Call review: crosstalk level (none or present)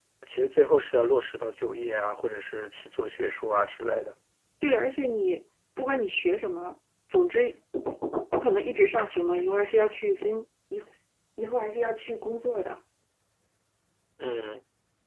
none